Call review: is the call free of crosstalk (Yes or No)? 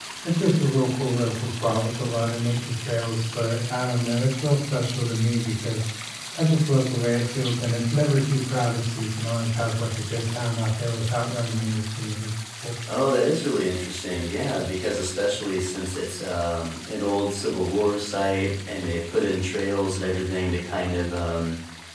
Yes